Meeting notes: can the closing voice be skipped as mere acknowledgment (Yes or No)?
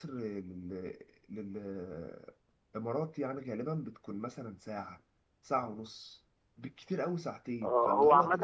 No